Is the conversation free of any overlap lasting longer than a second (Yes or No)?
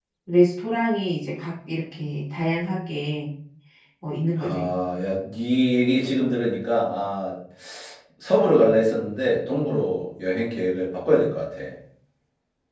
Yes